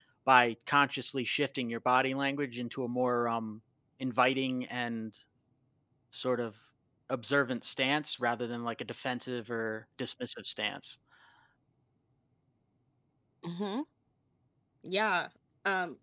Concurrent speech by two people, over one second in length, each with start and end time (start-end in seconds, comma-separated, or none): none